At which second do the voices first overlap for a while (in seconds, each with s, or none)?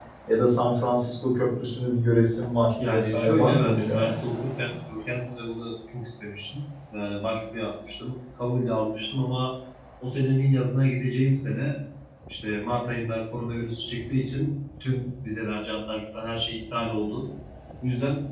2.8 s